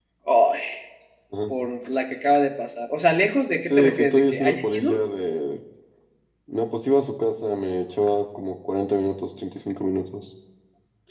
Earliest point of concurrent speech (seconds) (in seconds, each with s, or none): 3.7 s